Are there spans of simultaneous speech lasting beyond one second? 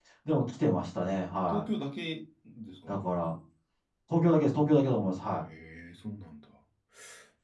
No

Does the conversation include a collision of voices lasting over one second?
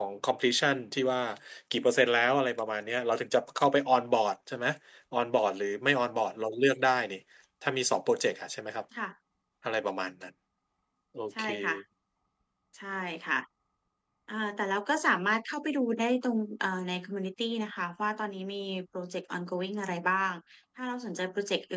No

